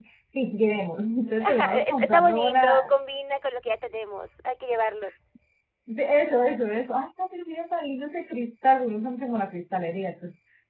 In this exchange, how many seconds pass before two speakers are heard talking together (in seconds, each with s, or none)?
1.4 s